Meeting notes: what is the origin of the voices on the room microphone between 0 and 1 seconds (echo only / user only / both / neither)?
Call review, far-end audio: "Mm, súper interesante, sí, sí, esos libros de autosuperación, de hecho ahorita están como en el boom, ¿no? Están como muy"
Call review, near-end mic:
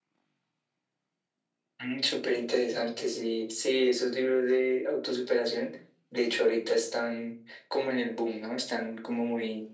neither